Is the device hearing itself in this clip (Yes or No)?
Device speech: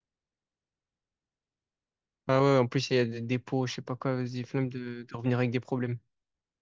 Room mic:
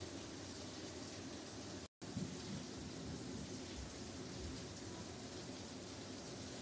No